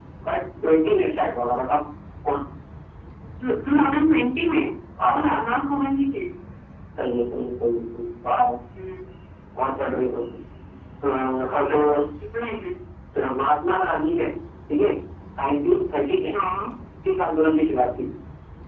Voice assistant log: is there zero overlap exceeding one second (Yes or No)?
Yes